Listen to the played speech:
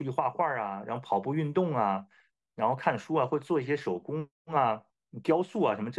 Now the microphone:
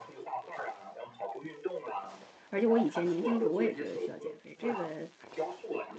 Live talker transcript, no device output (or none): 而且我以前年轻时候我也觉得需要减肥。这个，